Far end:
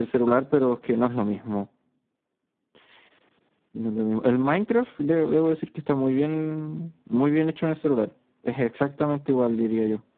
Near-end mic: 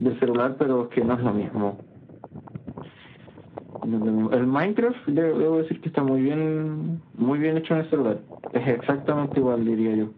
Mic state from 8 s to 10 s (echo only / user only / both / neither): echo only